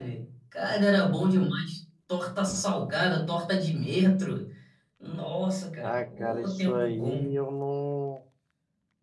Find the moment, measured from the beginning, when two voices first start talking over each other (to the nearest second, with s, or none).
6 s